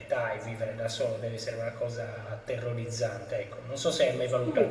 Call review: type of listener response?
taking over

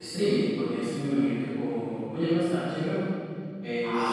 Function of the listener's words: taking over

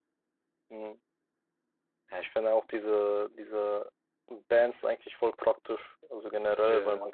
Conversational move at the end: listening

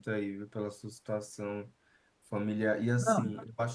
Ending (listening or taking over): listening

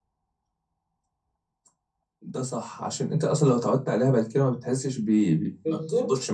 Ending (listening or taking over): taking over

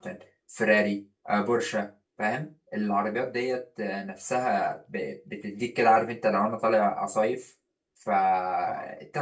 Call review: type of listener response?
listening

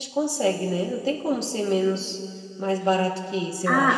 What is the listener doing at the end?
taking over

